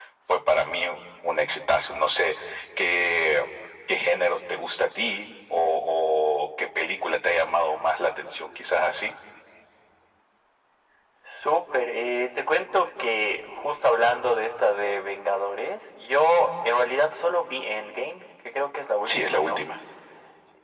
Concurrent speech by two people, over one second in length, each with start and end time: none

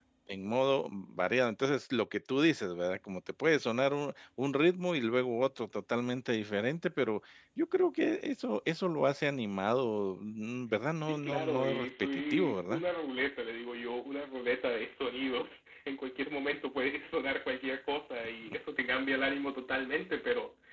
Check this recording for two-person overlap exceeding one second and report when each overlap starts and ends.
11.0-12.8

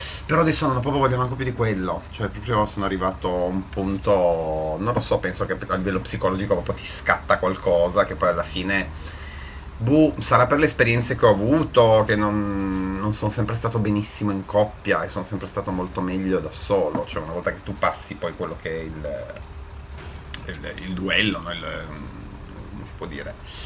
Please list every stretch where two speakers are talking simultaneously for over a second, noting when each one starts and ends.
none

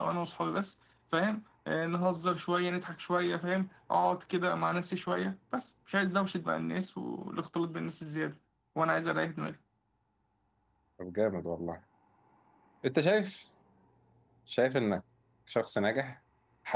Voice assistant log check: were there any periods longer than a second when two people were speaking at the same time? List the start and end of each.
none

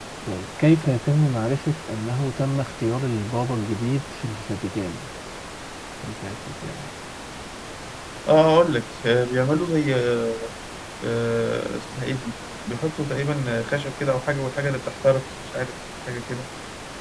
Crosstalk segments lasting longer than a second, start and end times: none

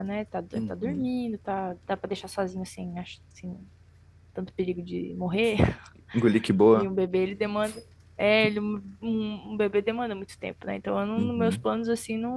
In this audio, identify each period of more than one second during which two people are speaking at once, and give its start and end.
none

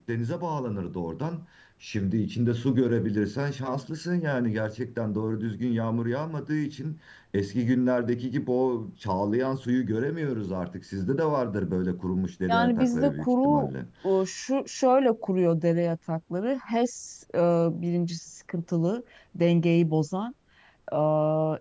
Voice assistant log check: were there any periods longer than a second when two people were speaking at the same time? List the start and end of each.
12.5-13.7

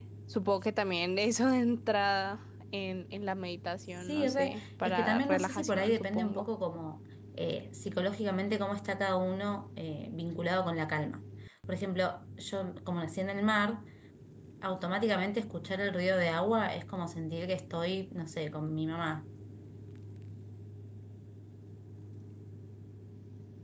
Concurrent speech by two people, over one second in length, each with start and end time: 4.0-6.5

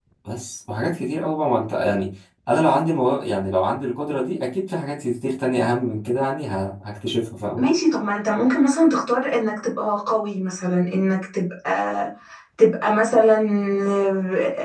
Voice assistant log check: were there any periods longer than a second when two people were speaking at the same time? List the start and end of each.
none

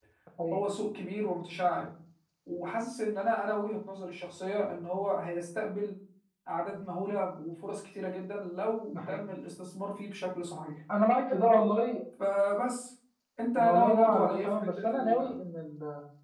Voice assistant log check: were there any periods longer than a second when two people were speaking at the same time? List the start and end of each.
13.6-15.3

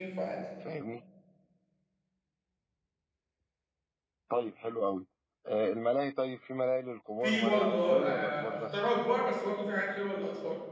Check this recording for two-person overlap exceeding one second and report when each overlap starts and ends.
7.2-8.8

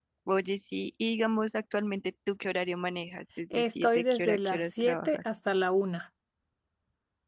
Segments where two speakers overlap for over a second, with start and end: 3.5-5.3

